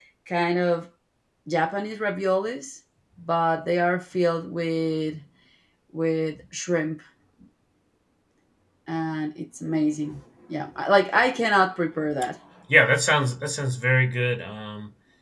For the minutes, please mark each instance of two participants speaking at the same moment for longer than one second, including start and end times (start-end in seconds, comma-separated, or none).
none